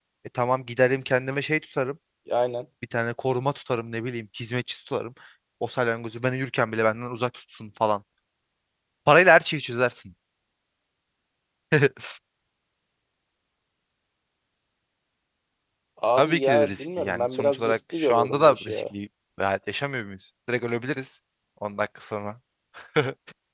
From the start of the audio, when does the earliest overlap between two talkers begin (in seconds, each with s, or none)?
16.2 s